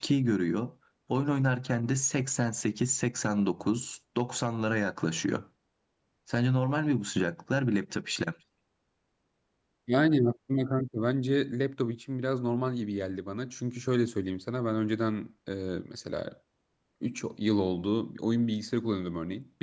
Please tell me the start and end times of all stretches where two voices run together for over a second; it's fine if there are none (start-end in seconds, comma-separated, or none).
none